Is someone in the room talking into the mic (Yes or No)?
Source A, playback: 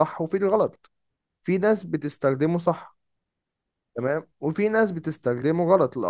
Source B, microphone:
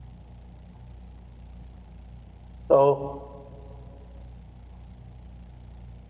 Yes